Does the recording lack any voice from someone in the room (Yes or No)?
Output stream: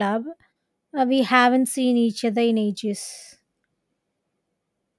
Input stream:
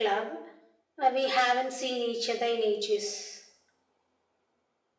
Yes